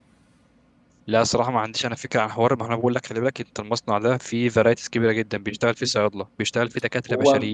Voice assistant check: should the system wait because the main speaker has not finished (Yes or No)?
Yes